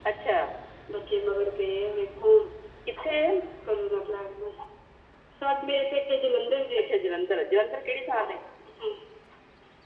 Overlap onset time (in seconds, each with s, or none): none